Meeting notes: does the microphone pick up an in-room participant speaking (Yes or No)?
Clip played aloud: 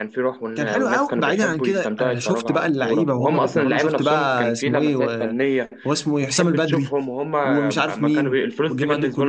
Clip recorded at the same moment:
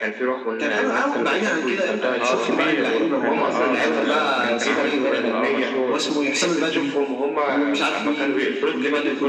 Yes